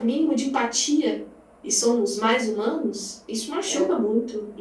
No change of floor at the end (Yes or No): Yes